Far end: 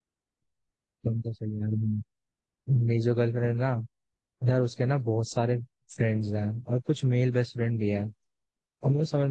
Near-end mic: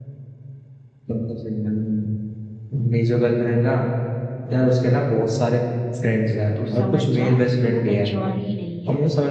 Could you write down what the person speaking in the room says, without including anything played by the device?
तो समझ जा कि वो मैच्योर ही नहीं है

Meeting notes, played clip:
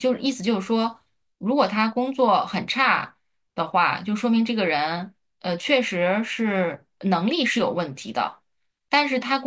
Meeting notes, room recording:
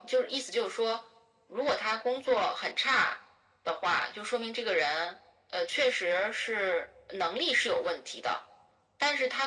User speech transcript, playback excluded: none

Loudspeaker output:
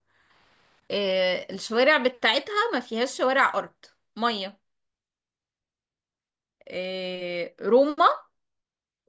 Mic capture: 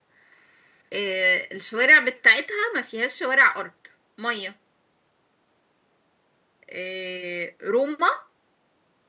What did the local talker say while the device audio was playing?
none

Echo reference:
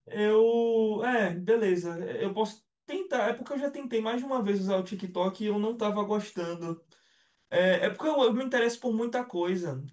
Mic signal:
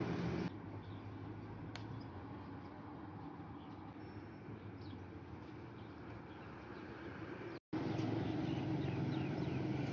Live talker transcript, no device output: none

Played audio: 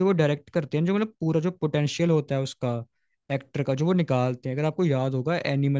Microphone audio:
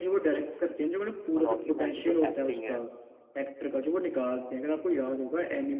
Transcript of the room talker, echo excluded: रॉकी भाई की जो एक्टिंग है

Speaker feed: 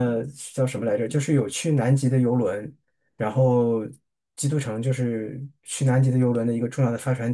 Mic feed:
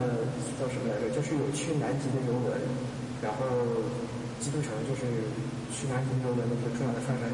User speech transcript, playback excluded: none

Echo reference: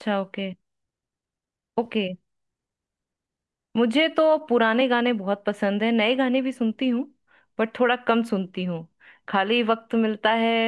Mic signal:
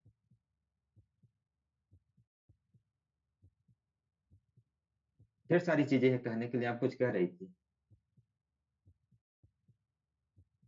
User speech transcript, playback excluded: ढेर सारी चीजें हैं कहने के लिए आप कुछ कह रही थी

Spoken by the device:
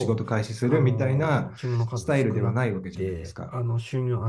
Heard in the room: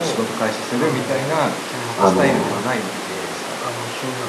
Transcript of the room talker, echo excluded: あの、

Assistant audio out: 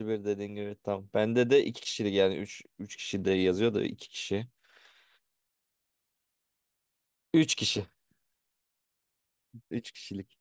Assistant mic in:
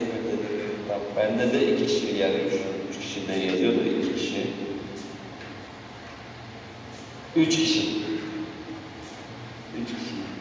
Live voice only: none

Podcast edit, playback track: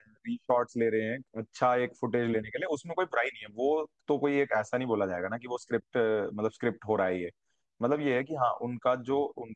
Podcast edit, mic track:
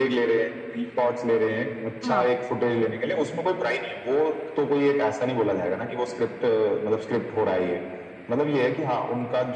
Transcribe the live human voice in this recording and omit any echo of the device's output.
हाँ

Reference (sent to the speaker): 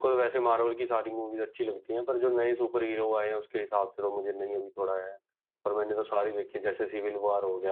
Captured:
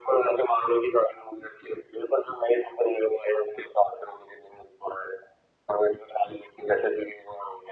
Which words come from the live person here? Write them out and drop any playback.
none

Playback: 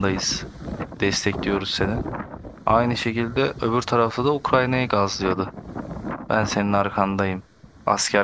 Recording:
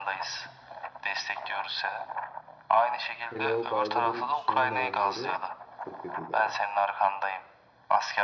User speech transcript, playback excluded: Hele o Biden'ın son dönemleri çok kötüydü abi.

